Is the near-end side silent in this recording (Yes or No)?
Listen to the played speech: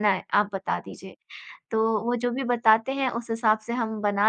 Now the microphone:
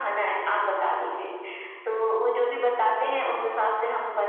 Yes